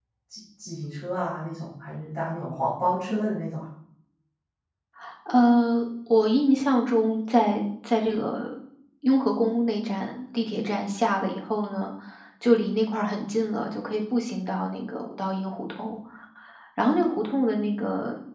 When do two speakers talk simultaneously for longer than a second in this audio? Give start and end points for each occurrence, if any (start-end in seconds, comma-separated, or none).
none